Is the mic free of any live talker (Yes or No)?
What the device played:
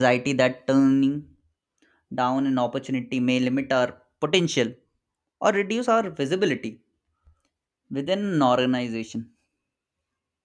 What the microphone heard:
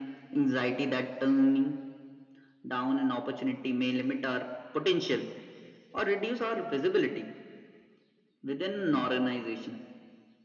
Yes